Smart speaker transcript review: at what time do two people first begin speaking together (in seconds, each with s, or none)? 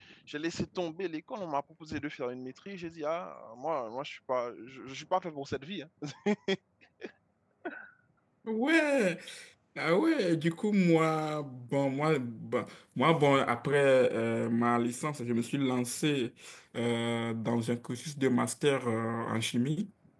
none